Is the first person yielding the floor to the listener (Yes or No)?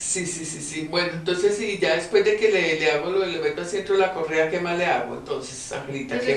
Yes